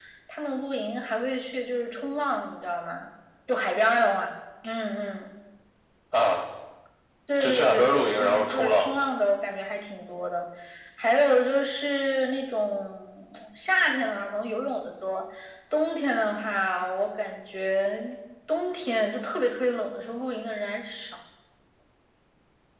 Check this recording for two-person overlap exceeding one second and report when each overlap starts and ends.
7.4-8.9

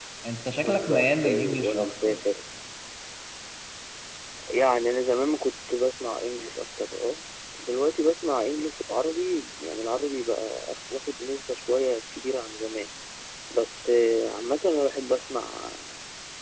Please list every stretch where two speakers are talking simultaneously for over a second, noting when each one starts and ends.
0.6-2.3

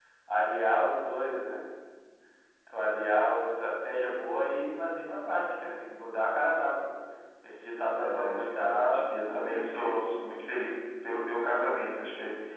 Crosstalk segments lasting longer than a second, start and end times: 8.0-9.9

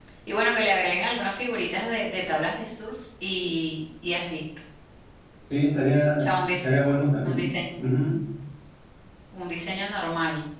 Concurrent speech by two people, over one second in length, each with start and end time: none

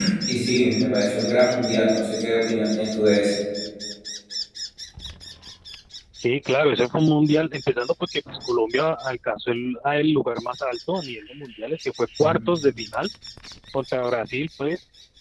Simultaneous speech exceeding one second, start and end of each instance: none

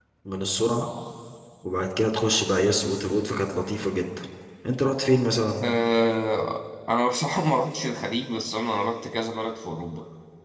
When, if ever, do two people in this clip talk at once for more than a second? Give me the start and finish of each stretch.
none

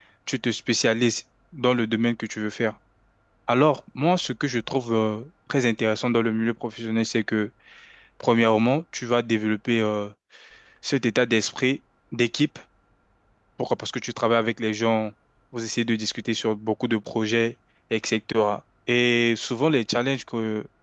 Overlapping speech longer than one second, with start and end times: none

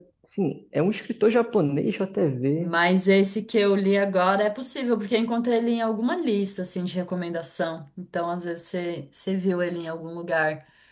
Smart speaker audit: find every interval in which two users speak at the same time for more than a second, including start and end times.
none

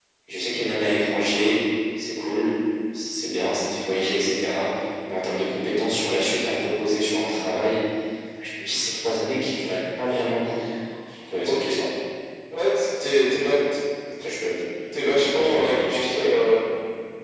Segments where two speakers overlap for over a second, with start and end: 15.1-16.3

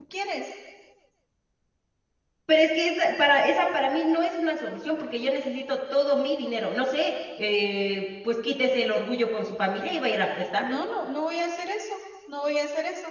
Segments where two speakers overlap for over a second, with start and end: none

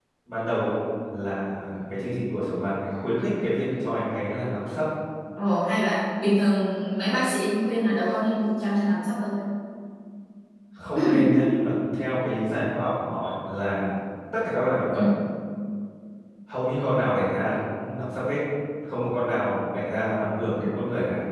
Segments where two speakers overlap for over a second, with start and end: none

